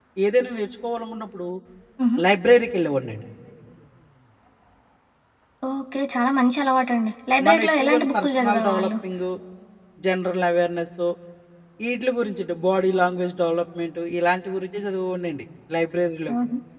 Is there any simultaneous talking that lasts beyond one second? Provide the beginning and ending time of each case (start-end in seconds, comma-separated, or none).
7.5-8.9